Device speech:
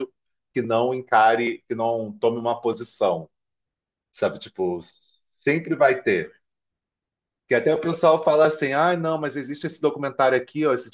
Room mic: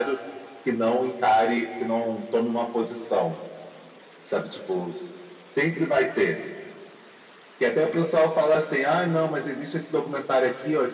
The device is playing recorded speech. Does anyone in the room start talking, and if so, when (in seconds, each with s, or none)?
none